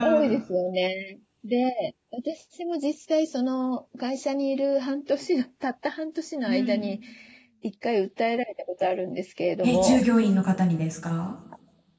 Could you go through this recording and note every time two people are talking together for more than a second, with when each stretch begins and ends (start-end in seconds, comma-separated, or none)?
none